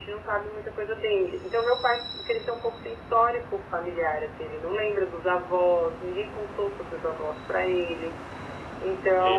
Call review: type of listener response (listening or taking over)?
listening